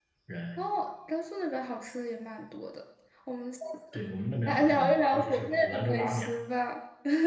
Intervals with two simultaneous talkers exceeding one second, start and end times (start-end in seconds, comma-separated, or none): 4.5-6.3